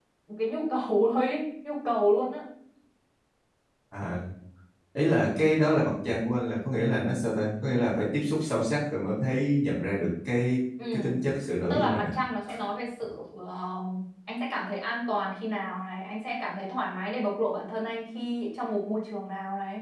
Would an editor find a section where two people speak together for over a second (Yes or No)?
No